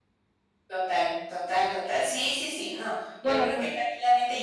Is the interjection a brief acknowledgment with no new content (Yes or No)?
Yes